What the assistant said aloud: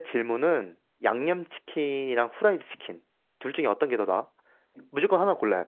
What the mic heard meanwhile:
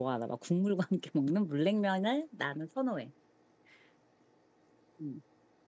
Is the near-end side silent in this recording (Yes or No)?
No